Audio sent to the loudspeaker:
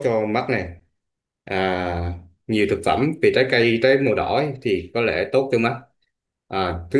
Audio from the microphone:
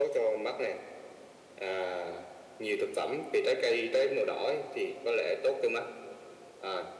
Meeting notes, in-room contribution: none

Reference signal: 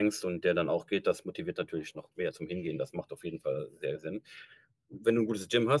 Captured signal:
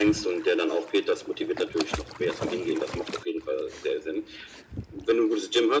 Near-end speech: none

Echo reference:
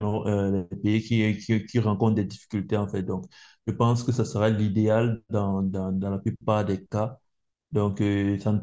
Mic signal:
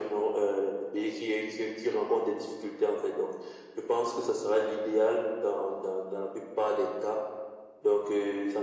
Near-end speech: none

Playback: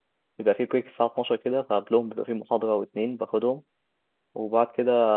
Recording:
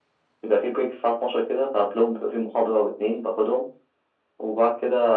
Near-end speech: none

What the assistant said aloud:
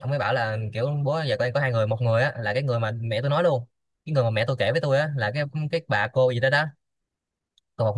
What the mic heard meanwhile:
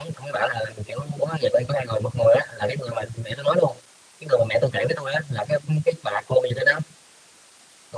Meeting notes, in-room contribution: none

